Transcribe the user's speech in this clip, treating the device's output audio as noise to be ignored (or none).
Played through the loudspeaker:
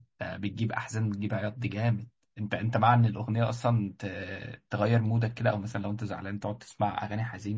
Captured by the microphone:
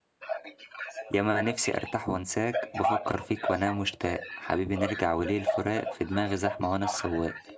ياما نفسي ارتاح وانساك بفكر فيك وانام مشتاق حبيبي نرجع وليه الفراق في دماغي زحمه وانا السواق